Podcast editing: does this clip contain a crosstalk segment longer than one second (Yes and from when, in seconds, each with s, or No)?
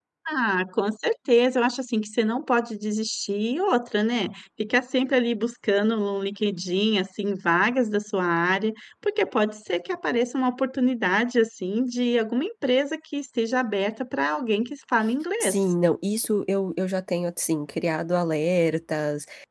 No